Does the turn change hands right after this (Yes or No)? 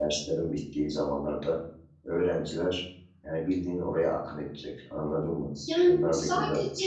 Yes